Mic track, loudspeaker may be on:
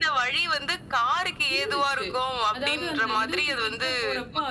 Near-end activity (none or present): present